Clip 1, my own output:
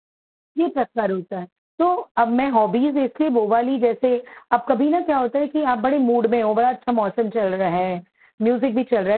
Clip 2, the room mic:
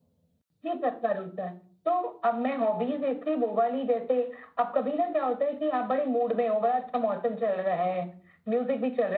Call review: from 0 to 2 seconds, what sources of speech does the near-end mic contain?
echo only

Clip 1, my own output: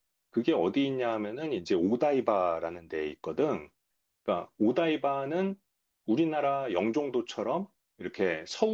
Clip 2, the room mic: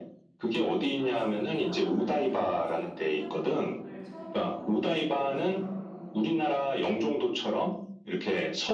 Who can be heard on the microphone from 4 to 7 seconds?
both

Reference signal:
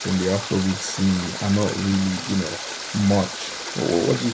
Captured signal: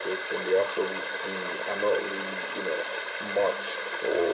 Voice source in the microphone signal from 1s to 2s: echo only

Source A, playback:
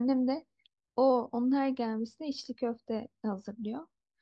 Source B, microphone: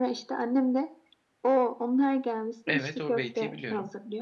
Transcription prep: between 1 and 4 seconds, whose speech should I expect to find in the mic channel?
both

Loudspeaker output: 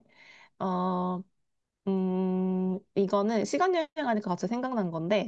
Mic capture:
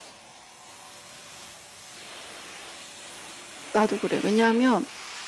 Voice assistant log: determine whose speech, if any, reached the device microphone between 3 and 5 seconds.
user only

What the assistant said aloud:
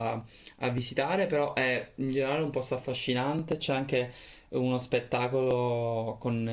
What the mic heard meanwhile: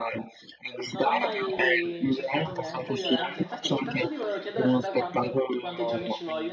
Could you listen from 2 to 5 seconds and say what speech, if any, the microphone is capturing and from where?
both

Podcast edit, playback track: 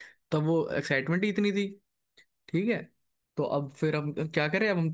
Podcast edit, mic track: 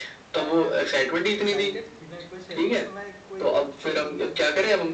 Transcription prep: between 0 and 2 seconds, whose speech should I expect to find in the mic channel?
both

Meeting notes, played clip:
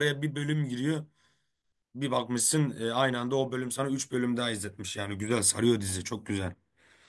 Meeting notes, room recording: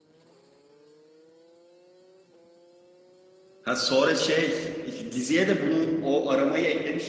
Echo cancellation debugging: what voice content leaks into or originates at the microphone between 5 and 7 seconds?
user only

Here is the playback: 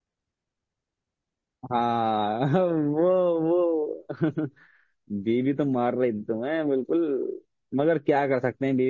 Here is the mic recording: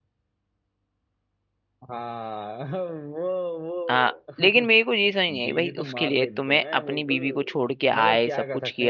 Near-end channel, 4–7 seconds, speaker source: both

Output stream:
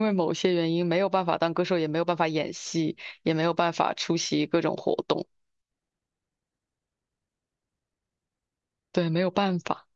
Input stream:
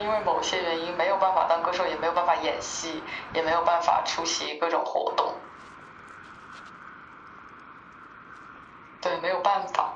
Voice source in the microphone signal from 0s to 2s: echo only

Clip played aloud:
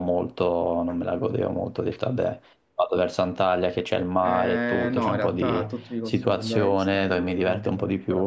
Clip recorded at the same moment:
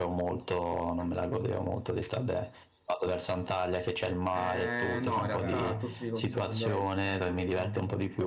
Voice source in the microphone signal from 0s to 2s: echo only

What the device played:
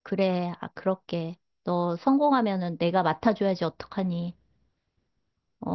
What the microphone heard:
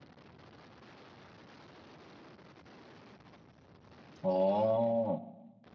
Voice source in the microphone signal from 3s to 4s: neither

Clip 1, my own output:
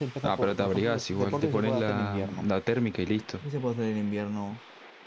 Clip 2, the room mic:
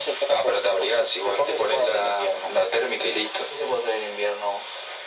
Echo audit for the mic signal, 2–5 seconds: echo only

